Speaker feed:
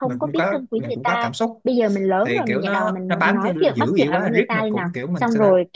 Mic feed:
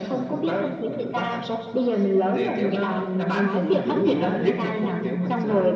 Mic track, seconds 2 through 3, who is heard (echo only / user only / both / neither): echo only